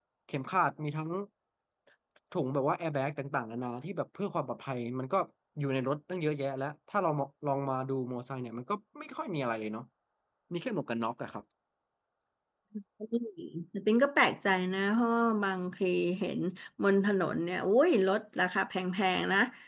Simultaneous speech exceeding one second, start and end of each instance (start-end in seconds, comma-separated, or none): none